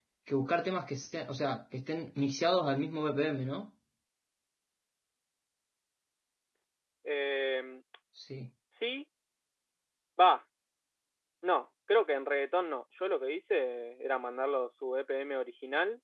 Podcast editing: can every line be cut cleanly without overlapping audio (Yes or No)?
Yes